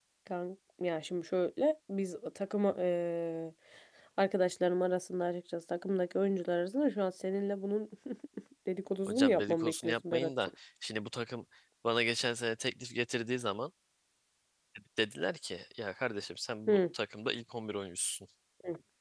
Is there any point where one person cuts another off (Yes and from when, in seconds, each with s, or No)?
Yes, from 9.1 s